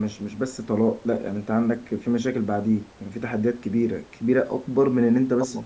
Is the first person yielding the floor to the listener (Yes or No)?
No